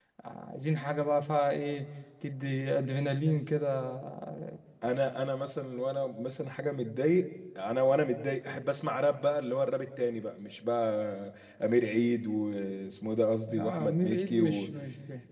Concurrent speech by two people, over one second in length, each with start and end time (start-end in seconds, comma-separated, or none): 13.5-14.7